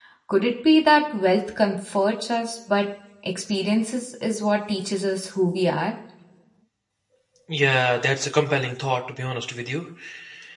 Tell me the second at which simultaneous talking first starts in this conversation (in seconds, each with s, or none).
none